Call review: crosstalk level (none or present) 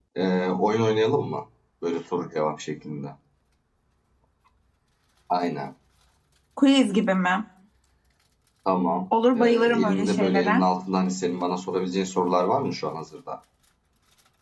present